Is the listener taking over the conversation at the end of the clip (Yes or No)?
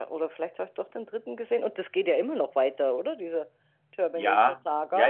Yes